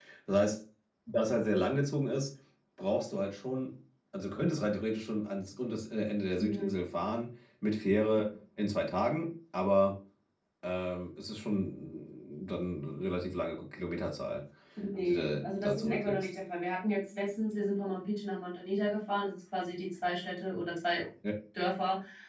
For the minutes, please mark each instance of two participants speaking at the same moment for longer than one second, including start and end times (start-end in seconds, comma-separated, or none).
15.1-16.3